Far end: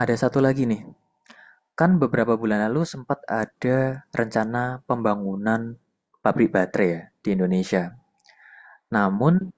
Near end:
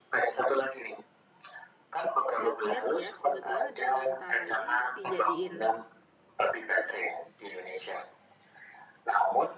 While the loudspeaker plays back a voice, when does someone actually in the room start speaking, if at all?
2.3 s

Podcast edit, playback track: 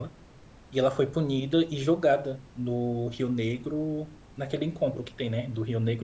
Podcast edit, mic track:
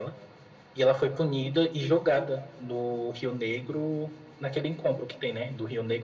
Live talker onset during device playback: none

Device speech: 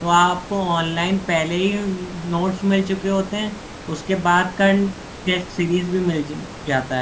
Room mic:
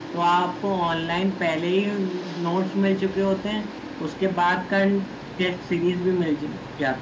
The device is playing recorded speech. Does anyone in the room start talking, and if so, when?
none

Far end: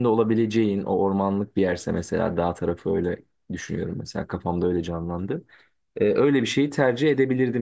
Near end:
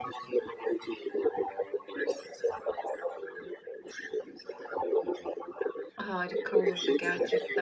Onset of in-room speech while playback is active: 6.0 s

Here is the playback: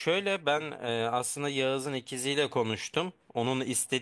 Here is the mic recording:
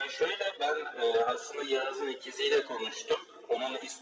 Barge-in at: none

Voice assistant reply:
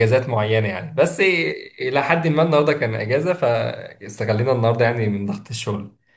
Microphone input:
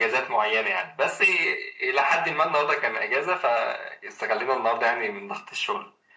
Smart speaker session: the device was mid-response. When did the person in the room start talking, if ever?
none

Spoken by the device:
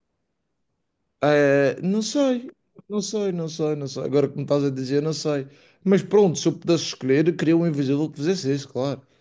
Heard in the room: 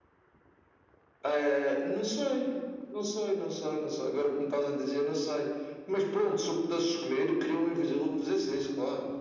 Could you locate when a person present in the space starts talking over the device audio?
none

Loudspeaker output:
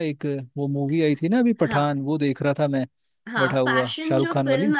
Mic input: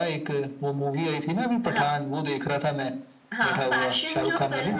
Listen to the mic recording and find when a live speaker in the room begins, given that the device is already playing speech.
none

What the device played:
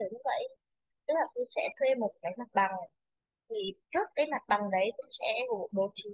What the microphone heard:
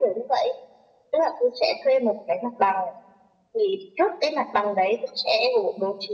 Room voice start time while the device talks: none

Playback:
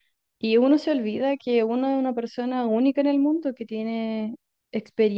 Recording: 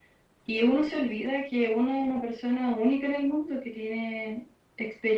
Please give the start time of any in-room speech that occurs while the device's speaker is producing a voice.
none

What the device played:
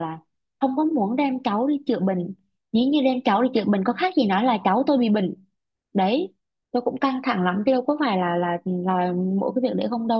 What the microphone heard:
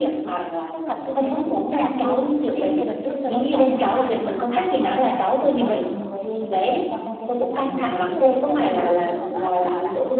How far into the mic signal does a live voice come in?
0.7 s

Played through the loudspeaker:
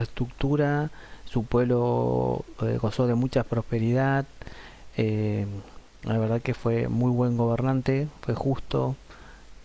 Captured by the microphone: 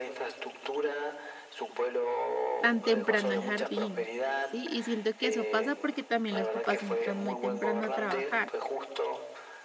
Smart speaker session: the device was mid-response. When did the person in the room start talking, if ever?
2.6 s

